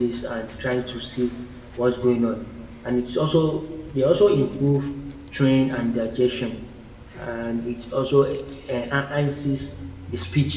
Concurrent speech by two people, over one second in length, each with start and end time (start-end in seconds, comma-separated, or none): none